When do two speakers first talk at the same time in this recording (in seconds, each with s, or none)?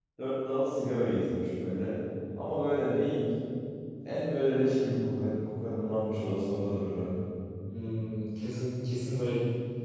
none